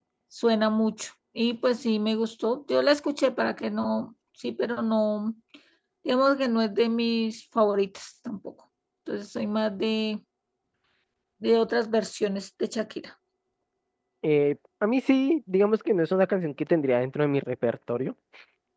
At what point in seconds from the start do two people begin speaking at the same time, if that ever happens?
none

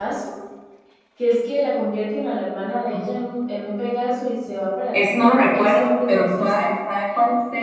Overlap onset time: 4.9 s

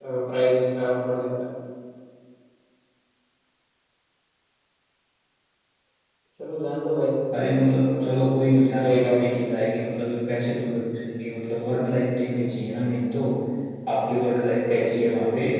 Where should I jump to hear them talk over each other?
8.0 s

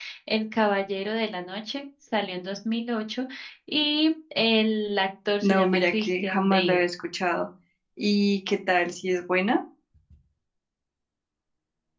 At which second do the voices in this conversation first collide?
5.4 s

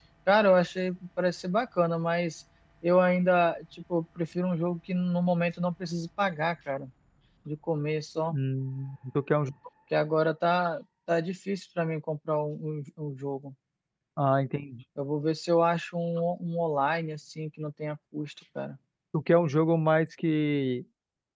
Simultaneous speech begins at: none

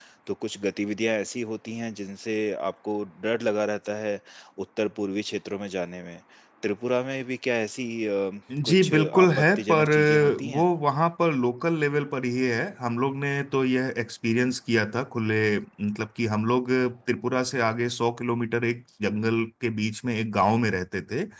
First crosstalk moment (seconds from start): 8.5 s

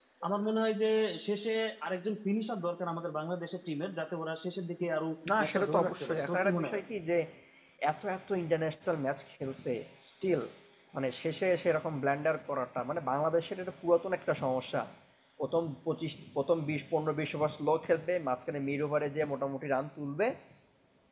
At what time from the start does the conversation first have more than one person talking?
5.2 s

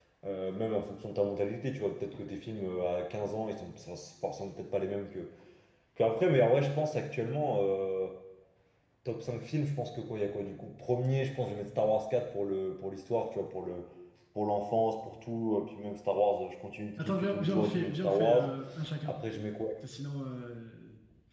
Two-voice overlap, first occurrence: 17.0 s

